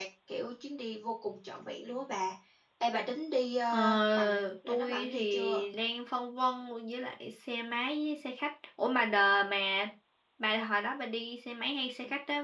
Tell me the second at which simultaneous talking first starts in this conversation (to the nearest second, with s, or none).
4 s